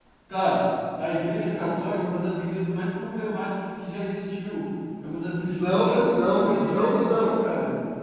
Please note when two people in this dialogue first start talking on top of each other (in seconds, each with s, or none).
5.5 s